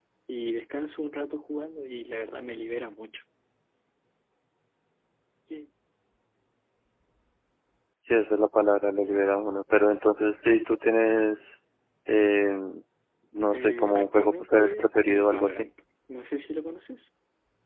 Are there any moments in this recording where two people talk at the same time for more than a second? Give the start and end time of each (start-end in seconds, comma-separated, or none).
13.5-15.7